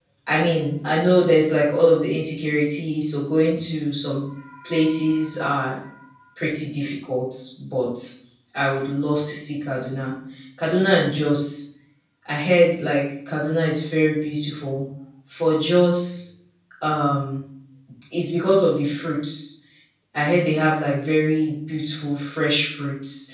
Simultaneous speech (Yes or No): No